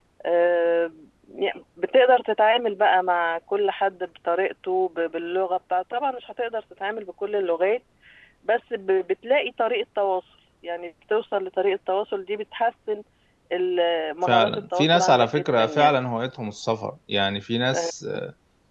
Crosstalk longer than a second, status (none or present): present